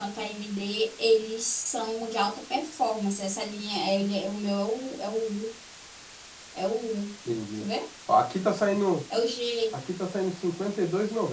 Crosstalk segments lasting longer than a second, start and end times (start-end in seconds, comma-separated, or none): none